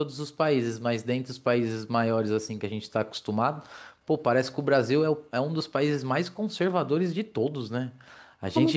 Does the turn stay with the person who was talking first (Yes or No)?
Yes